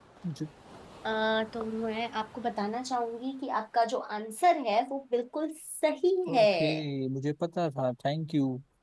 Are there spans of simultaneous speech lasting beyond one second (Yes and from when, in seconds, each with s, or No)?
No